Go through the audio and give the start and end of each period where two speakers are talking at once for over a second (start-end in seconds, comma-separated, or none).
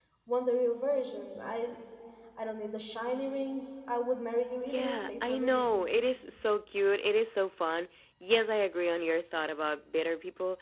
4.7-6.0